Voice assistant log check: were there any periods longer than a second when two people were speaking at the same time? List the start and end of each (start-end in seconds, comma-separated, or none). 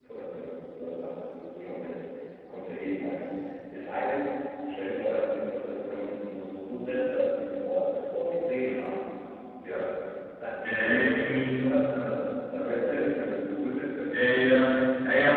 10.6-12.6